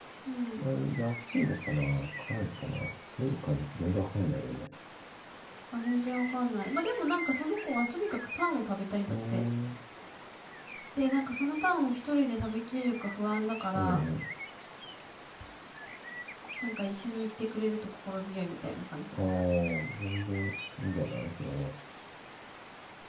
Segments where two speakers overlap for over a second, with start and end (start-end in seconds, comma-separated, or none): none